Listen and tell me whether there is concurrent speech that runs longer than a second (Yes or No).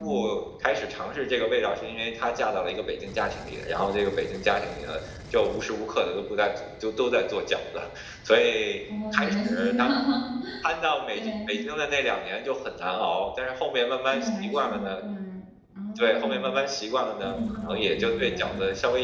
Yes